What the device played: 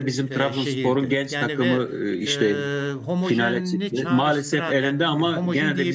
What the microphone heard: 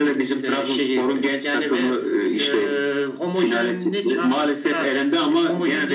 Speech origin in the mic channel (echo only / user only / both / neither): echo only